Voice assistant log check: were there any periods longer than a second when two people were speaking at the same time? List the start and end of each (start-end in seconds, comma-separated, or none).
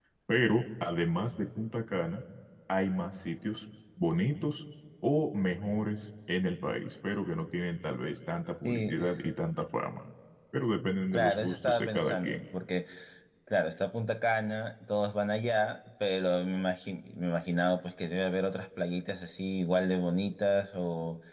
11.1-12.4